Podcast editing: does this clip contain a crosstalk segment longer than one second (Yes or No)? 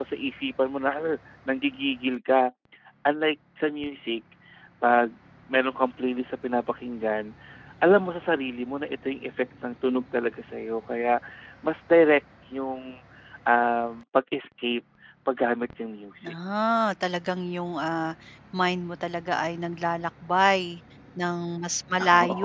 No